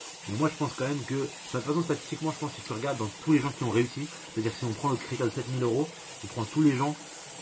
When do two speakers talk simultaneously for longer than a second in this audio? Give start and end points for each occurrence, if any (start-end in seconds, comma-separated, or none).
none